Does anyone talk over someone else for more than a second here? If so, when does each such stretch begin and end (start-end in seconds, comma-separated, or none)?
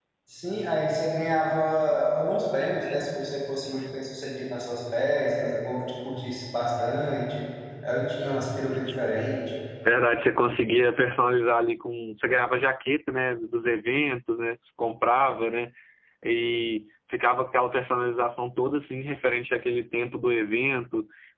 none